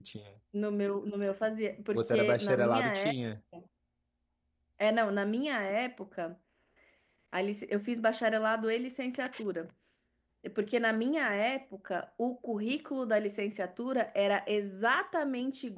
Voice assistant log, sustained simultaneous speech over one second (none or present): present